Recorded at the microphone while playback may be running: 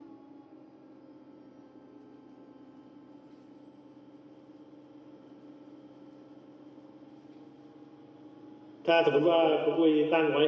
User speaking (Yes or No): Yes